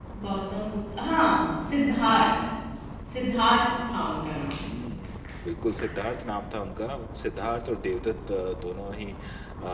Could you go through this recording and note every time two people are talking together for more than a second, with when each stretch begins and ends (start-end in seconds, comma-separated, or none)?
none